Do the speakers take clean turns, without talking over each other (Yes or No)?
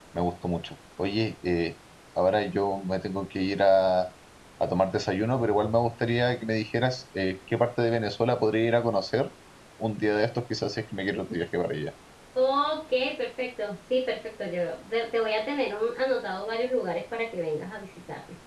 Yes